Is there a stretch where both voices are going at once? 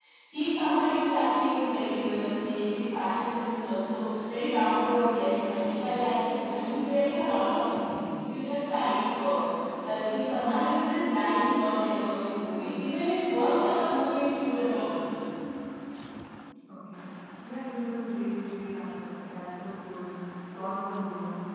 No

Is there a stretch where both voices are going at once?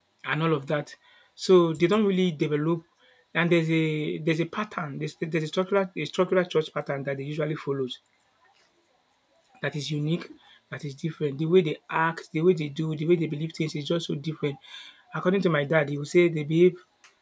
No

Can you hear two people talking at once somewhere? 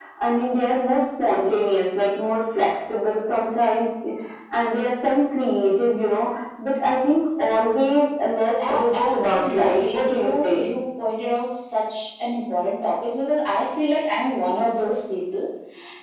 Yes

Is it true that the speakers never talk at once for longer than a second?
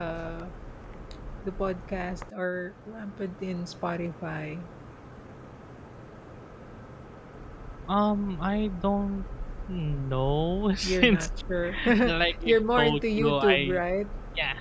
No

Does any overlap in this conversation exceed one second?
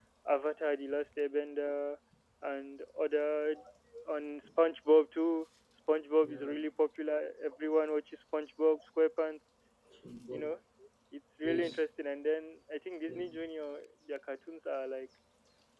No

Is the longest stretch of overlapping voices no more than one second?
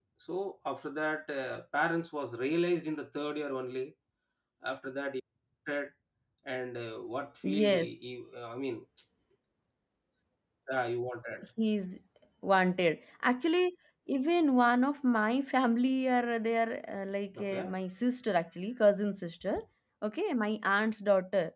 Yes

